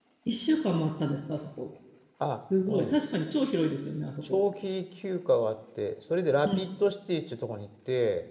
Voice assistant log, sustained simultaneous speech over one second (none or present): none